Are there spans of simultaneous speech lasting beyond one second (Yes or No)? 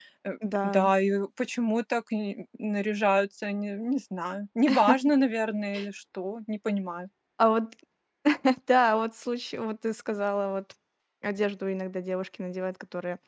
No